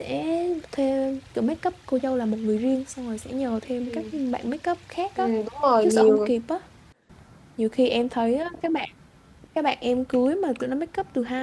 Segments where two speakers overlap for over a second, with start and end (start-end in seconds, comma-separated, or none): none